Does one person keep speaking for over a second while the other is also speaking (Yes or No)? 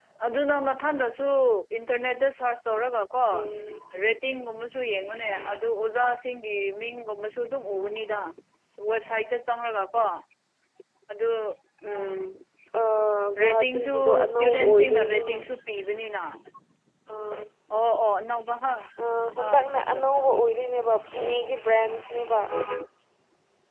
Yes